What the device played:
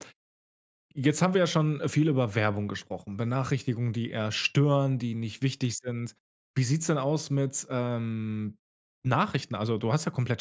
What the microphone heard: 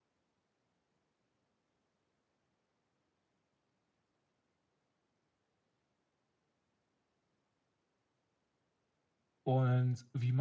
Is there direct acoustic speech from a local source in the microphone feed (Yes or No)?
Yes